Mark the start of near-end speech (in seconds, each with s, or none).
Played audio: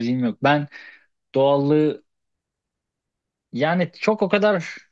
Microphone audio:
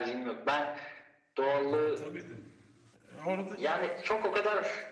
1.7 s